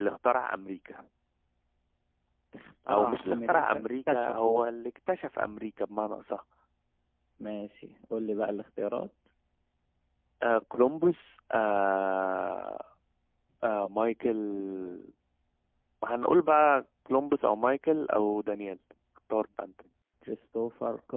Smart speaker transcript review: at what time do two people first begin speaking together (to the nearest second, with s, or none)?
3 s